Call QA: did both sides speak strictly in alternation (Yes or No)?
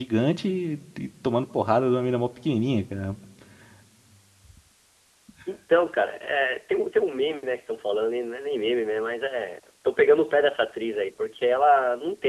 Yes